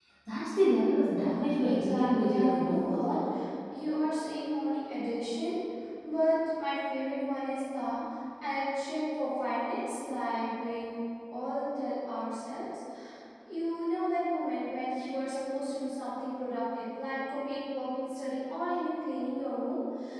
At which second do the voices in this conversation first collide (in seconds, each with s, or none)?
1.6 s